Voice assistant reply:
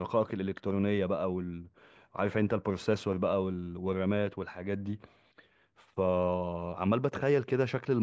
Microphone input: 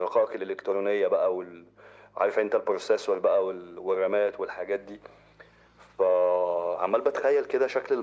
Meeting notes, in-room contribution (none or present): none